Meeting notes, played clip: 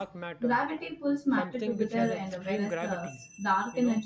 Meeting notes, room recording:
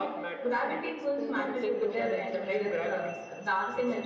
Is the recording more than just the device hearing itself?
Yes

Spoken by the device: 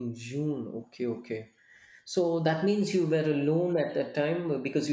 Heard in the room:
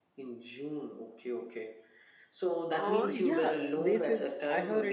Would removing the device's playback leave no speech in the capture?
No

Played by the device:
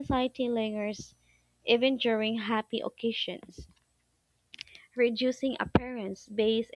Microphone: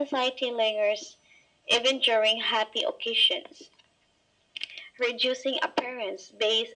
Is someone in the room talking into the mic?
No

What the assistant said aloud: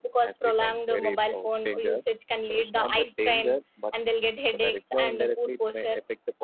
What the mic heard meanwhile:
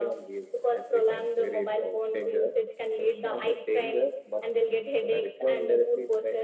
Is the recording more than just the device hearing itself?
No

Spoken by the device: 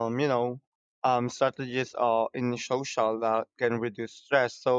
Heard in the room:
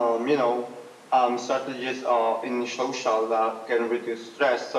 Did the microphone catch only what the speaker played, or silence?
Yes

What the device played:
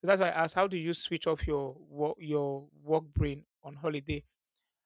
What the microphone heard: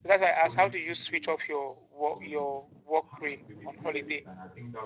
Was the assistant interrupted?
Yes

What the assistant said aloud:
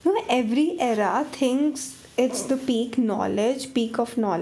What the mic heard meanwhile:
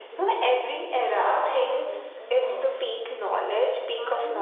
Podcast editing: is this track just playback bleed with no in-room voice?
No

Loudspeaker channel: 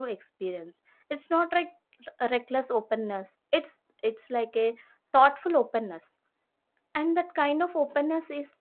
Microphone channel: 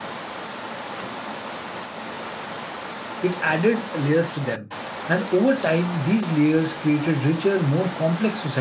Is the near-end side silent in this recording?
No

